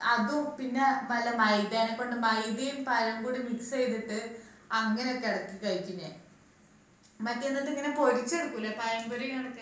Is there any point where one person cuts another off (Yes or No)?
No